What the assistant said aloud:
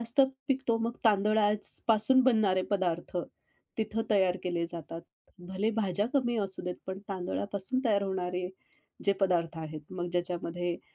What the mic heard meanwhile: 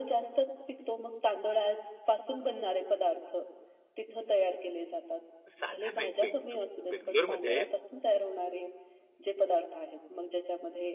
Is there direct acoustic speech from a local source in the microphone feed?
Yes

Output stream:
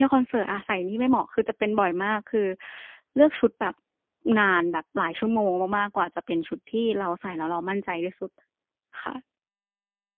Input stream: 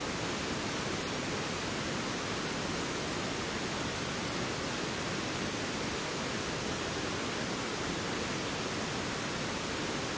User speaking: No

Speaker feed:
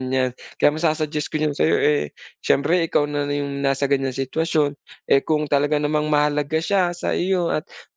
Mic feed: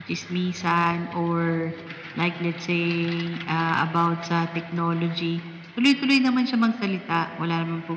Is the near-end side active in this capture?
Yes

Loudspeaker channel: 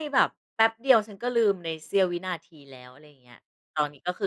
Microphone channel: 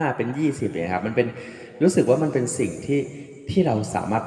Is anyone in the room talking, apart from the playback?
Yes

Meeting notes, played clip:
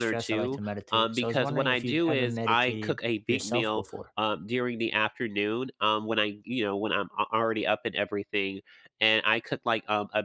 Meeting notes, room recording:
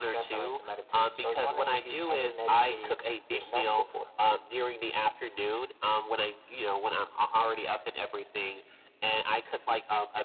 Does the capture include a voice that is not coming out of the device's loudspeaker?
No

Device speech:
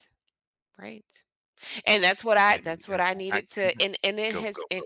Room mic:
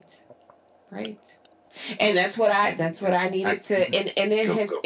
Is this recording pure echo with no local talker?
Yes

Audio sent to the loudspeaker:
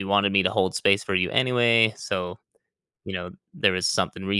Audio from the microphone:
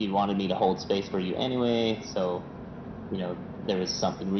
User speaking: No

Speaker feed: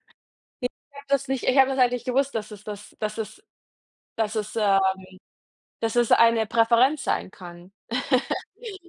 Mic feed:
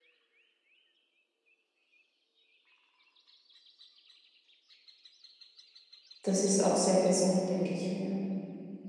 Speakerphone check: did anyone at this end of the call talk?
Yes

